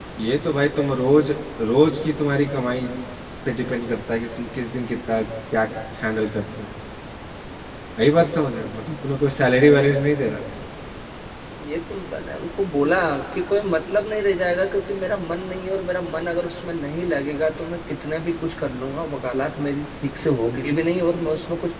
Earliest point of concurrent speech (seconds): none

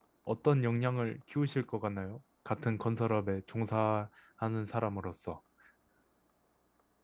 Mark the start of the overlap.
none

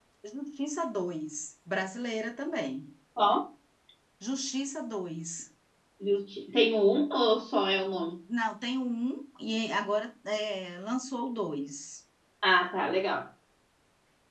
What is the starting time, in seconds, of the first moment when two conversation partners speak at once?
none

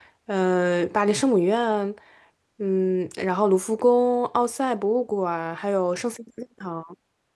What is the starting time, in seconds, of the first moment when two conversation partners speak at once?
none

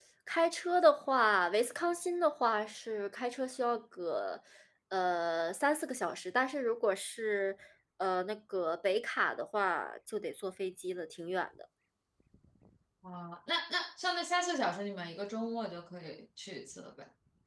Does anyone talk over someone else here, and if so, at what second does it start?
none

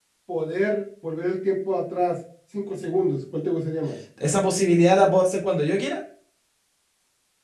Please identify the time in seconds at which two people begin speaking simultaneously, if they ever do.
none

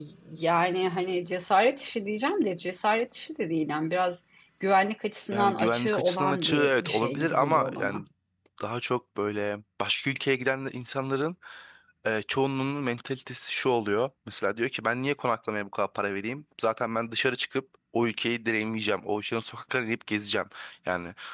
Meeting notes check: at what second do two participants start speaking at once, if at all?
5.3 s

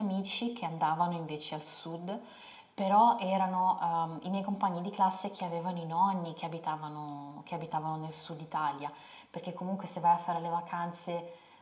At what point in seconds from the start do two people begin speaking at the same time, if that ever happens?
none

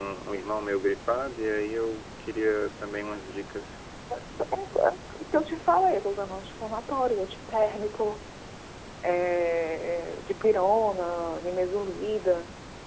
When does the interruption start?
none

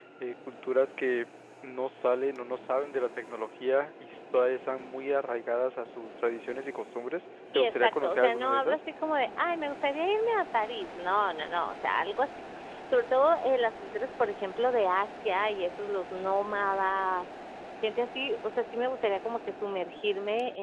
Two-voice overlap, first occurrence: 7.5 s

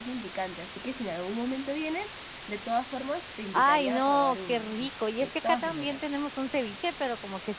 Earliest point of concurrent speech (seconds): 3.5 s

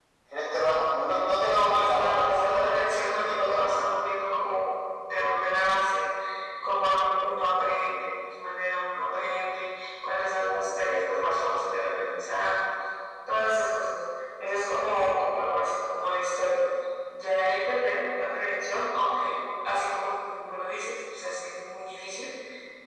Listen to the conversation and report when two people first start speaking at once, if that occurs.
1.1 s

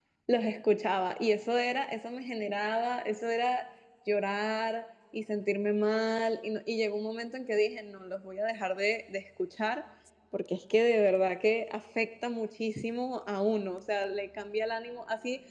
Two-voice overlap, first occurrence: none

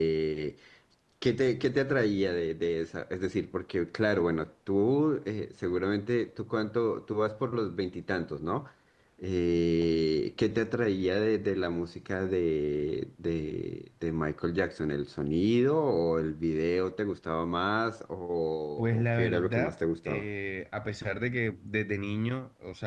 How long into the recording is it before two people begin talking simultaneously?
18.8 s

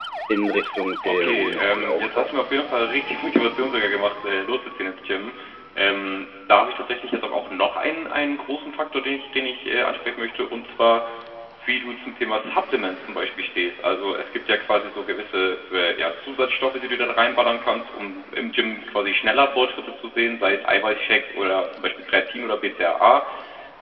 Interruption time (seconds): 1.0 s

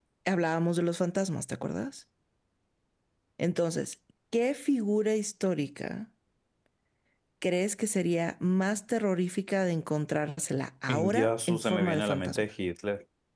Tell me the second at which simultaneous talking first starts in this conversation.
10.9 s

